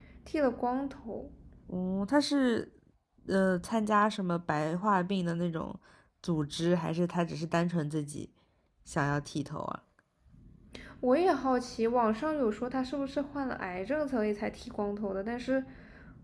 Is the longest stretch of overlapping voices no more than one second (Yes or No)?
Yes